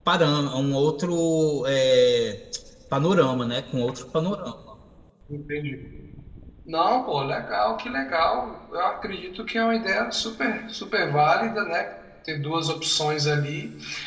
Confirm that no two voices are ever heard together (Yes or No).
Yes